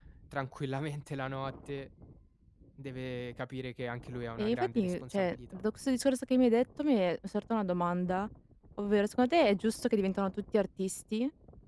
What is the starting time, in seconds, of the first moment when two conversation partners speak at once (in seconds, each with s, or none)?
4.4 s